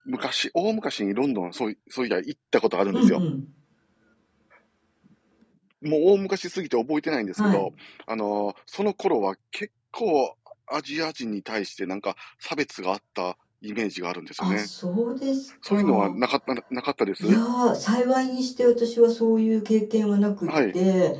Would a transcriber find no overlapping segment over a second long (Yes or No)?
Yes